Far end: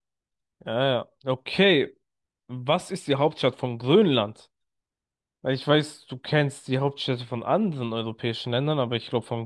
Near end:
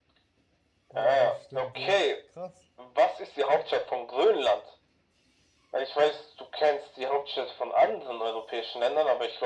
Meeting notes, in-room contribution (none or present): present